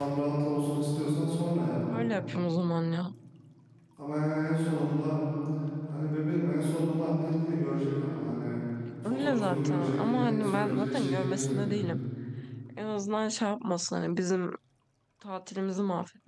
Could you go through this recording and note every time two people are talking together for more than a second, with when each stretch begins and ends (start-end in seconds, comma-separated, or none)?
9.0-11.9